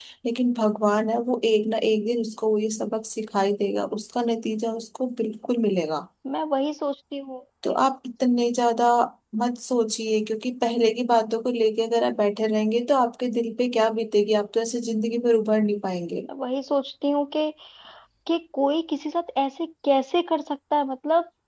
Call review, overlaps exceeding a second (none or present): none